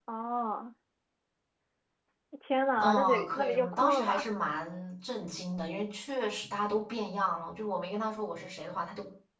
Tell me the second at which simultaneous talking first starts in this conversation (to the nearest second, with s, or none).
3 s